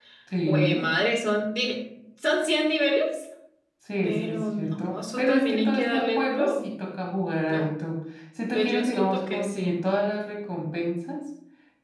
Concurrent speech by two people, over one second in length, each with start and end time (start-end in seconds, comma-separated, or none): 4.0-6.6, 8.5-9.8